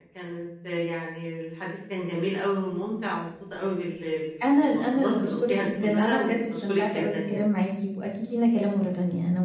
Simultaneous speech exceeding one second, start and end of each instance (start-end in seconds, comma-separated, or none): 4.5-7.4